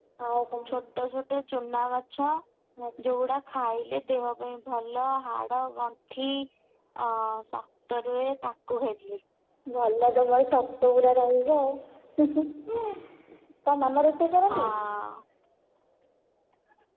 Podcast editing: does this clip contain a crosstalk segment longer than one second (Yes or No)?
No